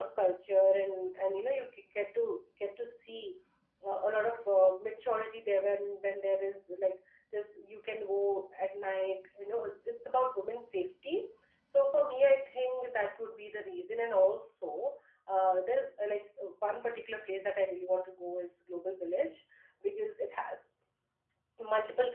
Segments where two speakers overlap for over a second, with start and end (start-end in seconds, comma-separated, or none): none